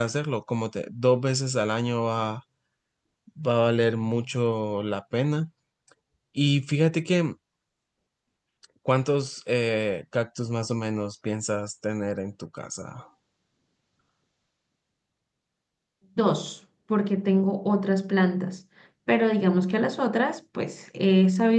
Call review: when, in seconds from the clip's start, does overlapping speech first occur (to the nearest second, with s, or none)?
none